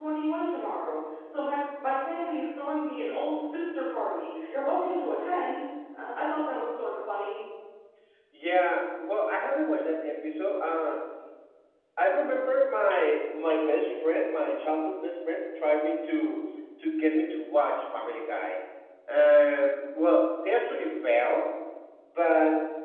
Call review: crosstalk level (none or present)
none